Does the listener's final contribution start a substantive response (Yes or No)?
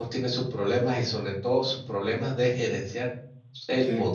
No